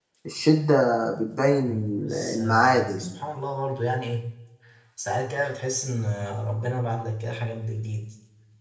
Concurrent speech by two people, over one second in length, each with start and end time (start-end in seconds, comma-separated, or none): 1.6-3.1